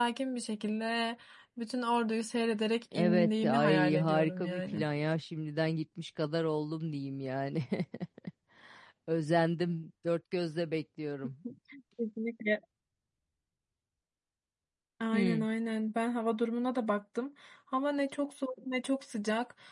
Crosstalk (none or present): present